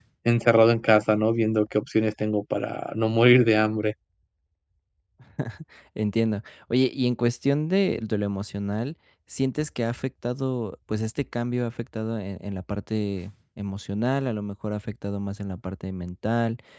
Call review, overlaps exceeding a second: none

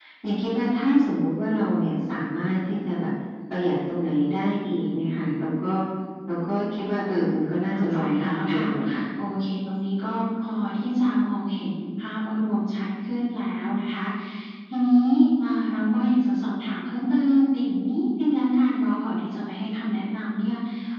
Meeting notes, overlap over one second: present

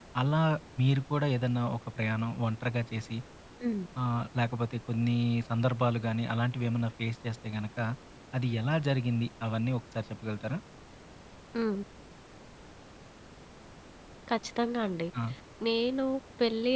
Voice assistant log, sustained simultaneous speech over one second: none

